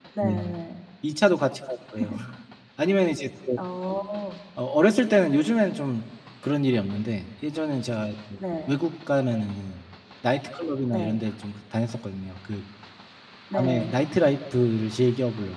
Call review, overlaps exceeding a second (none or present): none